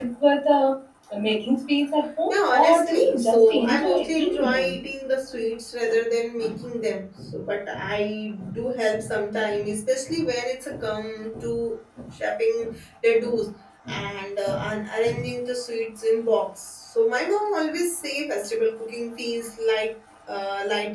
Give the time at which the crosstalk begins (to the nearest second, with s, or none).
2 s